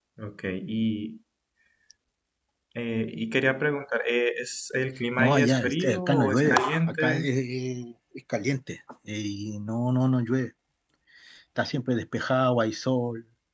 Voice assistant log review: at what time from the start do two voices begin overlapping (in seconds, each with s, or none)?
5.2 s